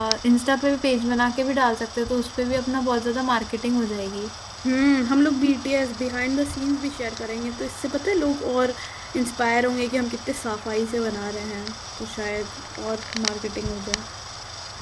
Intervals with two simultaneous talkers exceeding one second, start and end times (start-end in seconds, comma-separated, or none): none